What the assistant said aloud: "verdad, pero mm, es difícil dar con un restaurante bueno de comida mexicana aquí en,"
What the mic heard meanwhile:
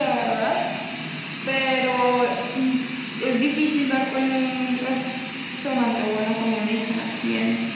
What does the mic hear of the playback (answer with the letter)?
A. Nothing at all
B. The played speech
B